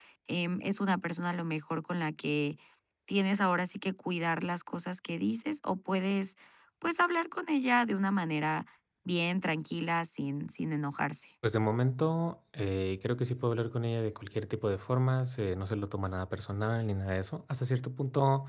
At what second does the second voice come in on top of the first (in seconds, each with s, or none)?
none